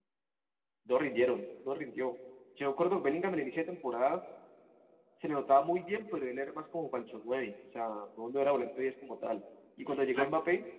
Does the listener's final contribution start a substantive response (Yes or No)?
No